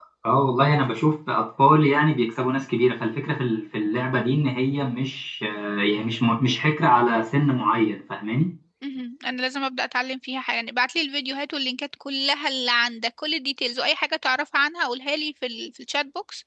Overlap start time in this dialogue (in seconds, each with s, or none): none